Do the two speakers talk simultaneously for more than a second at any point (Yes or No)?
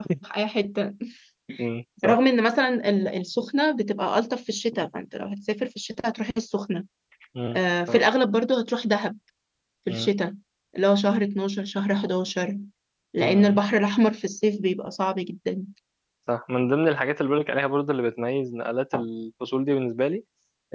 No